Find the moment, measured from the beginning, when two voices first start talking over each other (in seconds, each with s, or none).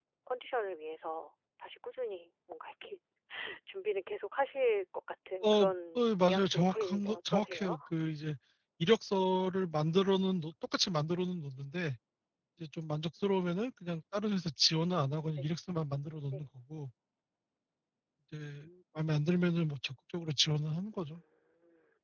5.4 s